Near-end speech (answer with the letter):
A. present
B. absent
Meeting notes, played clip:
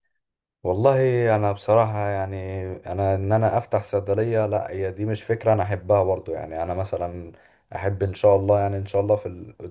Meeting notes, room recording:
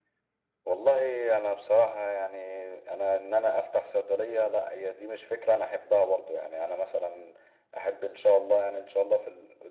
B